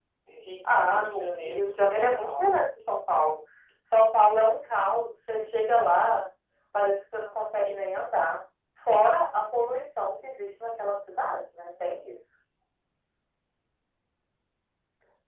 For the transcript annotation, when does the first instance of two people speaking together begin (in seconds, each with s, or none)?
0.8 s